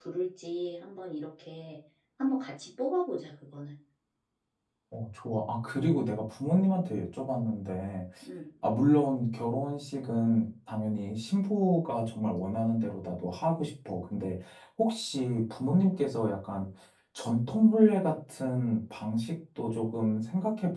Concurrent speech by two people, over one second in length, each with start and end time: none

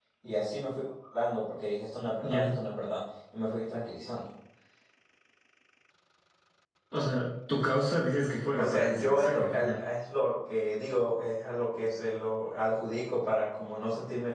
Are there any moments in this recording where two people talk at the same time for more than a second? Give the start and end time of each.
8.6-9.8

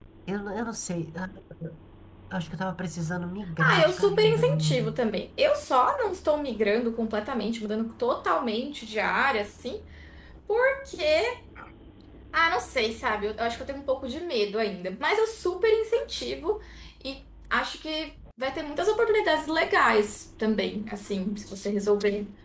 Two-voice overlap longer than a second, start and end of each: 3.6-4.9

